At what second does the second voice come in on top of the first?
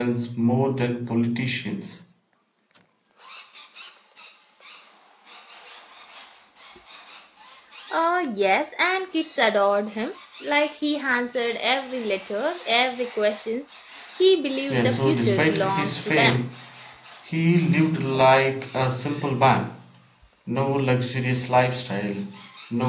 14.7 s

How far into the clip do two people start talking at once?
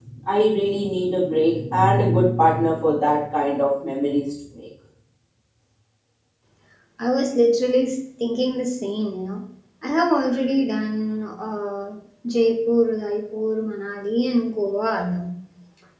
none

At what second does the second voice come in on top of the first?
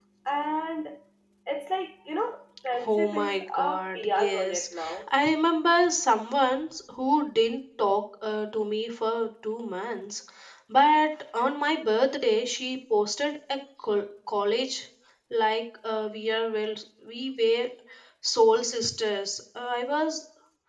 2.8 s

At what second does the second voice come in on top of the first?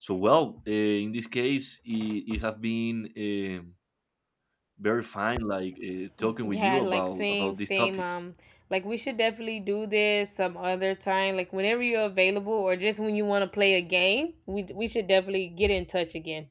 6.2 s

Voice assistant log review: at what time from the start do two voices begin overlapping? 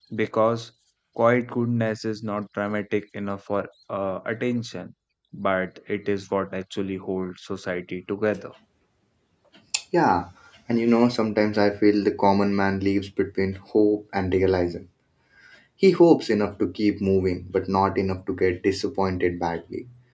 none

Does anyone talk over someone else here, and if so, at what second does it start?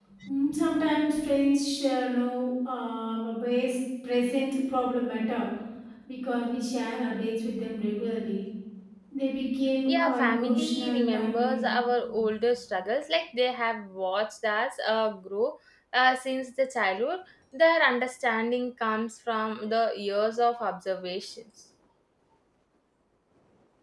10.0 s

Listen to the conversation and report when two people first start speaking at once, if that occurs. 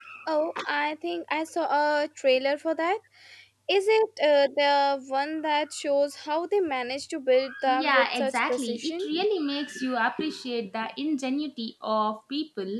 7.7 s

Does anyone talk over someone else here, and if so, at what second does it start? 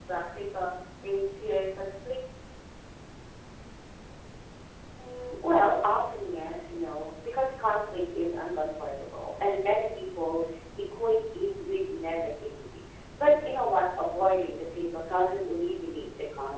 none

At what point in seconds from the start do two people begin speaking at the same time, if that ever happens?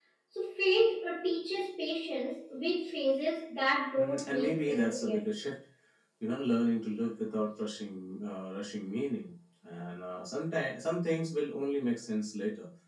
4.0 s

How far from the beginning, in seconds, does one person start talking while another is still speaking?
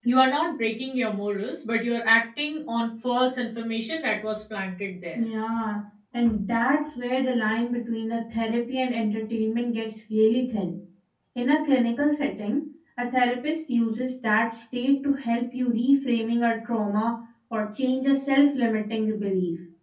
none

